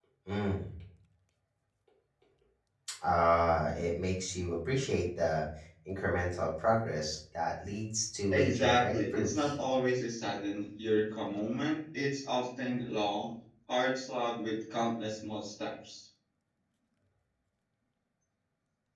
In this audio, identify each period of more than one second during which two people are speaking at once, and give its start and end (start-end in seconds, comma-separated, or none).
8.3-9.5